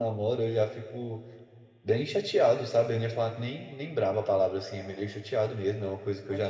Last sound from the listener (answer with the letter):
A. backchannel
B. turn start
A